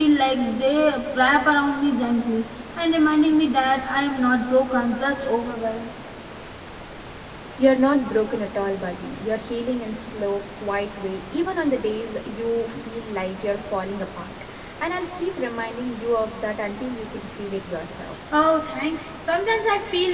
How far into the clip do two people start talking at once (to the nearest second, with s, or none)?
none